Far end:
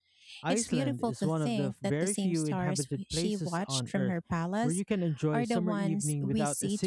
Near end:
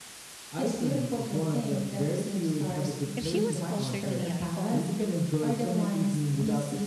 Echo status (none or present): present